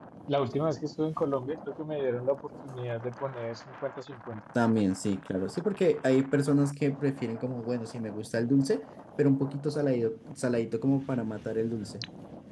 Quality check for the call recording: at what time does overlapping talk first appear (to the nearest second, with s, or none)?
none